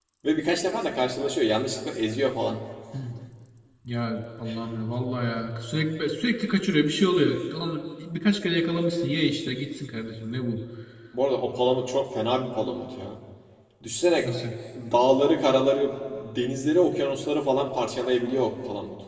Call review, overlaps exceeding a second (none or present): none